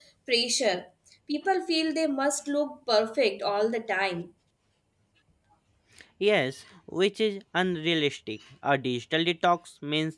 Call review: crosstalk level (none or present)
none